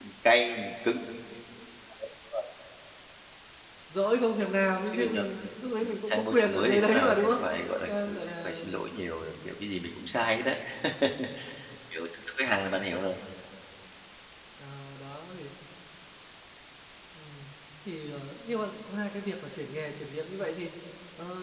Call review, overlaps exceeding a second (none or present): present